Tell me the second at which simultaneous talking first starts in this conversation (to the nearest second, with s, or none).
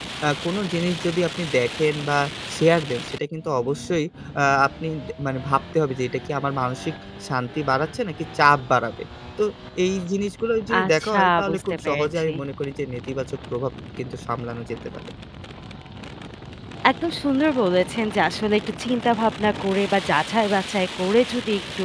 11 s